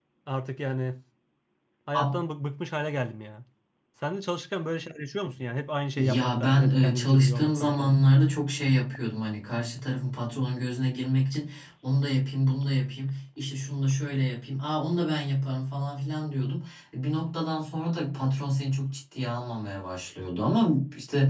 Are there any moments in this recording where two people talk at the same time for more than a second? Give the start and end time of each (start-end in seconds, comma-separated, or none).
6.0-8.0